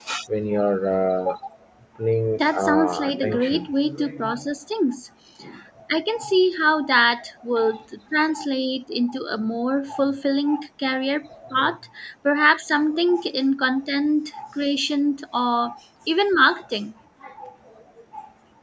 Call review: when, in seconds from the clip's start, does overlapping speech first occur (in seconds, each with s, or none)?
2.4 s